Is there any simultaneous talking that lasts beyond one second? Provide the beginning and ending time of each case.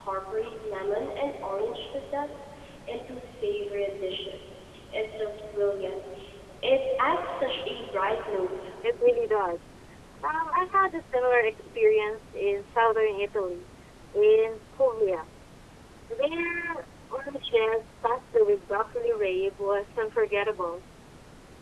none

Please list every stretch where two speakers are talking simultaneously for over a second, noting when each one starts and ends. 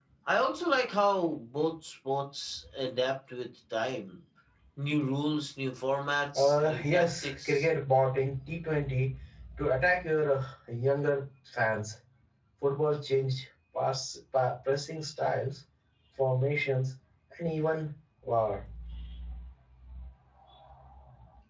6.3-7.7

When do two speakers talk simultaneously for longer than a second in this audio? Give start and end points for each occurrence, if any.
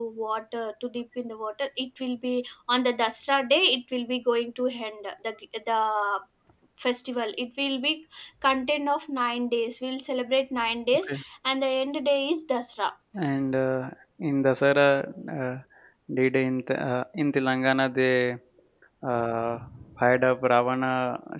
none

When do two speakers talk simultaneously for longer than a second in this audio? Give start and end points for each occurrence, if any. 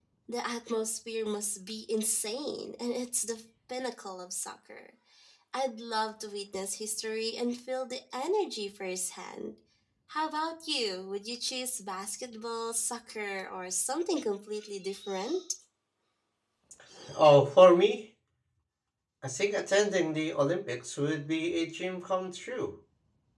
none

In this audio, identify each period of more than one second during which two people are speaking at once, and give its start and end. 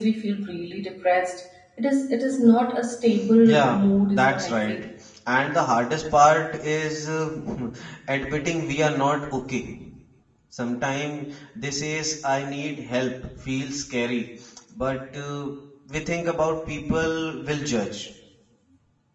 3.4-4.8

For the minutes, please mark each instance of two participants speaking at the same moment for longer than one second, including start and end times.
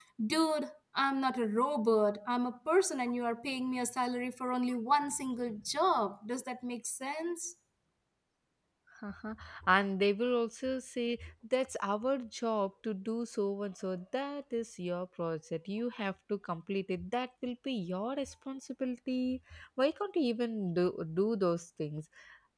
none

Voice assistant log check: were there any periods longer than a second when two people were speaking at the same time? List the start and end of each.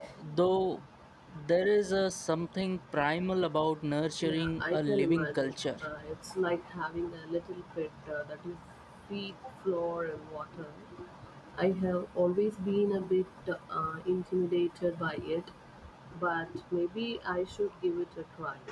4.2-5.5

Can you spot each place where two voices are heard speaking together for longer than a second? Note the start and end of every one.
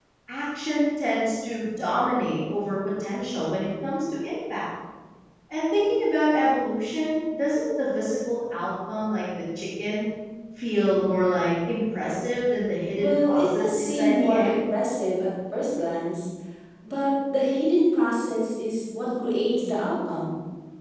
13.0-14.6

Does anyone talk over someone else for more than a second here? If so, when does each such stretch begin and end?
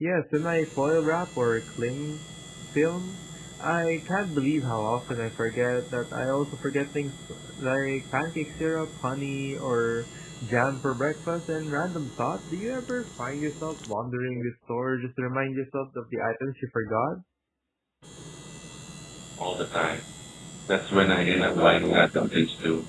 none

